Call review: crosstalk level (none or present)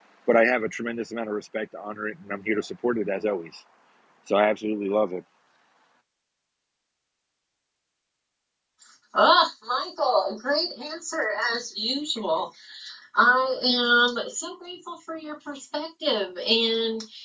none